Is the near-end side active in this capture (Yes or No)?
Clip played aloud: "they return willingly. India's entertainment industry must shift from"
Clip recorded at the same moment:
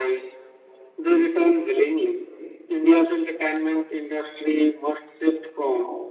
No